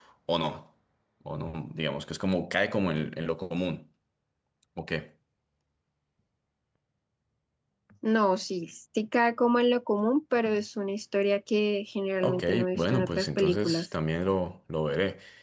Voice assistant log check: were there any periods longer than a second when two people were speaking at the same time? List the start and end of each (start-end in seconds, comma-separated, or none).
12.2-13.9